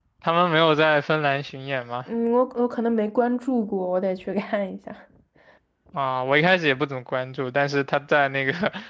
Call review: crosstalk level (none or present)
none